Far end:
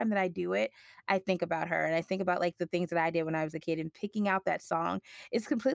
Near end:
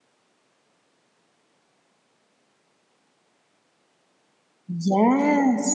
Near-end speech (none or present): present